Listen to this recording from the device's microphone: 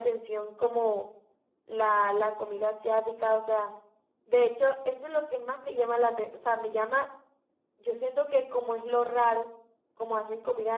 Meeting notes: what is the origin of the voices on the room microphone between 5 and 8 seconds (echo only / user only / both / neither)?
echo only